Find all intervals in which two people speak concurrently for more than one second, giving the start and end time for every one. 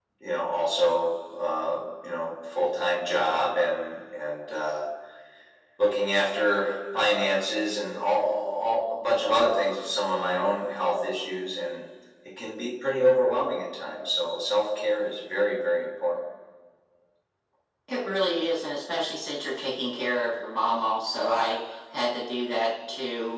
none

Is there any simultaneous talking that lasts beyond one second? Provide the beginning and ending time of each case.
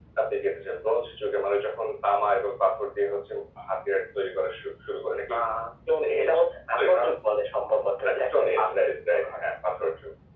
8.1-9.4

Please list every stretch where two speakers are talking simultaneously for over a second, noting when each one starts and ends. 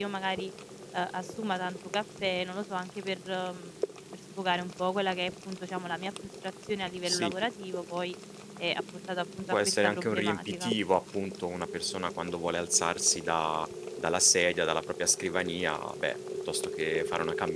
9.5-10.7

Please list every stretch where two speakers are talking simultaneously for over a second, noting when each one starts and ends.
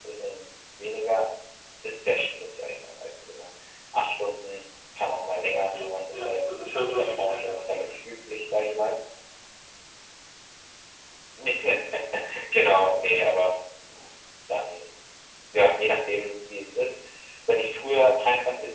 5.7-7.6

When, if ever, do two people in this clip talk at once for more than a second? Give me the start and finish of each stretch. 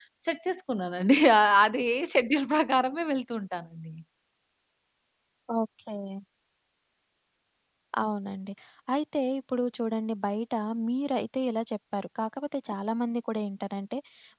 none

